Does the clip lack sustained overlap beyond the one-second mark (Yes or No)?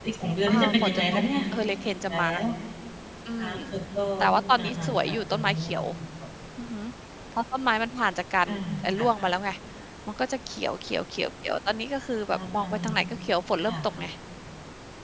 No